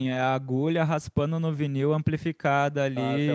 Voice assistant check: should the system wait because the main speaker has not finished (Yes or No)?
No